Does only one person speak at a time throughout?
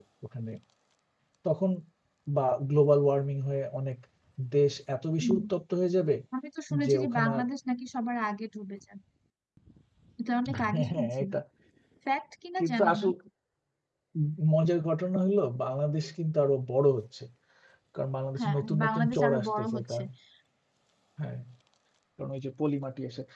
No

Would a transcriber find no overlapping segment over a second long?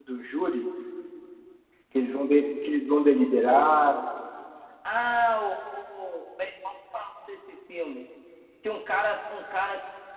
Yes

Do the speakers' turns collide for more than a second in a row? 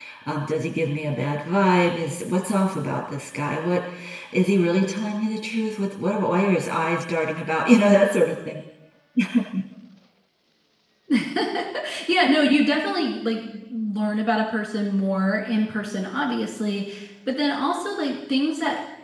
No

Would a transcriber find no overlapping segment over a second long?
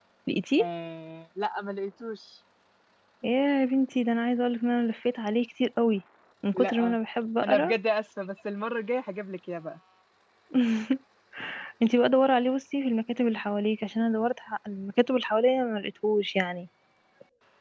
Yes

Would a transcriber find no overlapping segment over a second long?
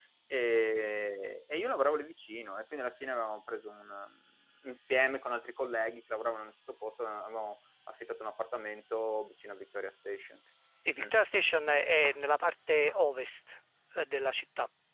Yes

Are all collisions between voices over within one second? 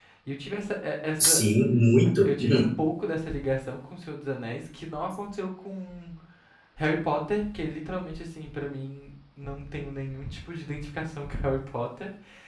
Yes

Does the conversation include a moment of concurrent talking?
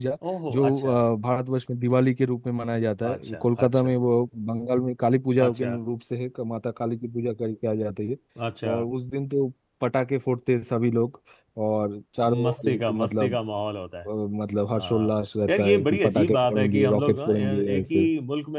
Yes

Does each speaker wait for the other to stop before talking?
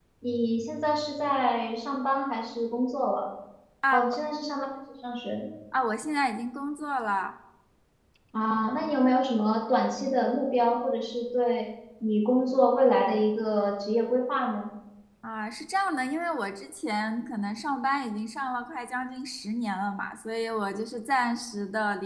Yes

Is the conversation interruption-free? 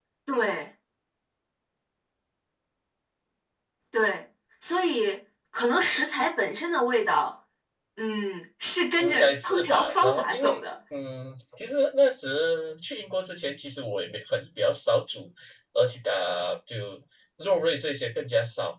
No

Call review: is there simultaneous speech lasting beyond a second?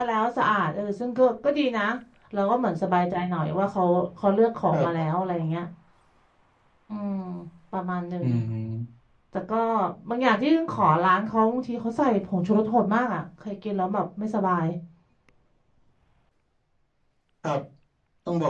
No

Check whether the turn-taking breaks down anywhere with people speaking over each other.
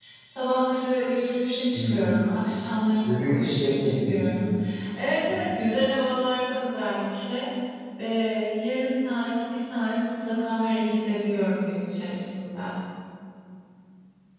Yes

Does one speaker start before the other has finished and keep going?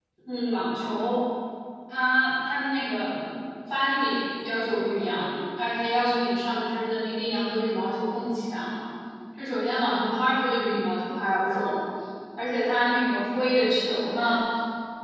No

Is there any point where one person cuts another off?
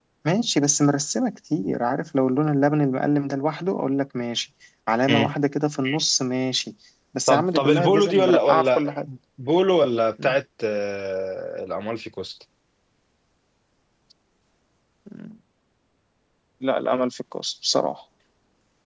Yes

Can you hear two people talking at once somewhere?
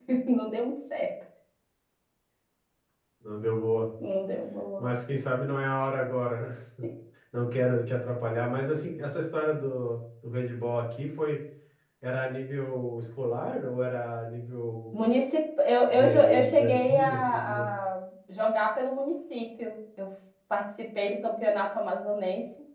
Yes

